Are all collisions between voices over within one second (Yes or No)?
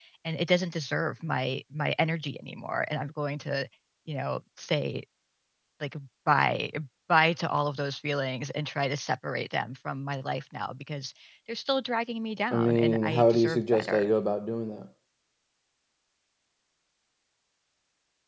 No